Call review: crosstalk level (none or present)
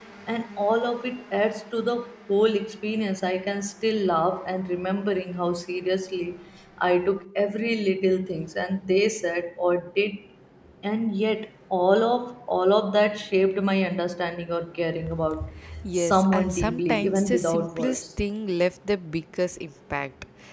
present